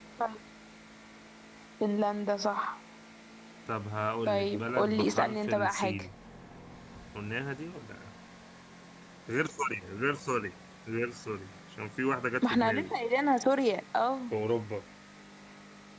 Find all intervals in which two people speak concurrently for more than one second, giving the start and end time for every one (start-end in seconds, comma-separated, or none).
4.3-6.0